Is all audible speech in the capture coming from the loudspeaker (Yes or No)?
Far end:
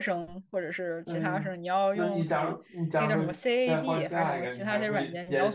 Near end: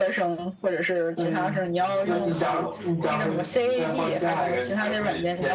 No